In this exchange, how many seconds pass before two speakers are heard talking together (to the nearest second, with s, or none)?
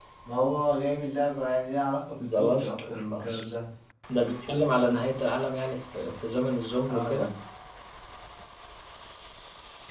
2 s